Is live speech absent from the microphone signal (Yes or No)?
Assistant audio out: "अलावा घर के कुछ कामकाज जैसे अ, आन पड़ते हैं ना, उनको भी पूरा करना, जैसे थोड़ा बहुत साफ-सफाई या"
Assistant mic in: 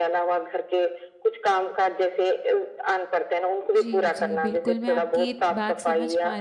No